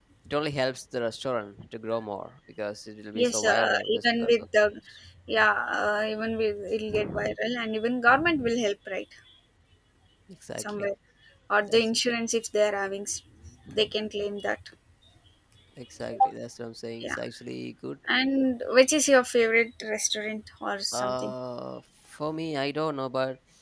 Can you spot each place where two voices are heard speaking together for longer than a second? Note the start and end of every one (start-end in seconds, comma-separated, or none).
3.2-4.4